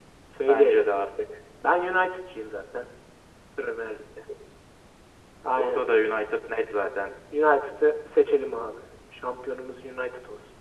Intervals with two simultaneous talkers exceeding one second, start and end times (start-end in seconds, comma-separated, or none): none